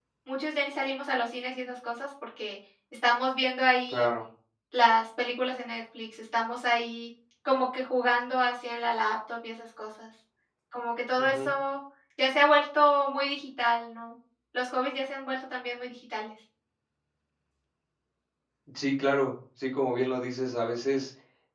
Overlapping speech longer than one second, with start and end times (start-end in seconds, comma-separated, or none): none